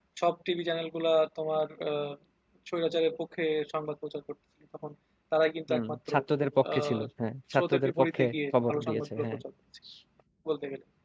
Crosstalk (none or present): present